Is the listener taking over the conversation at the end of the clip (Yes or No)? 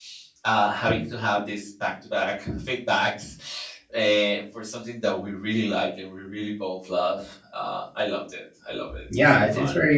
Yes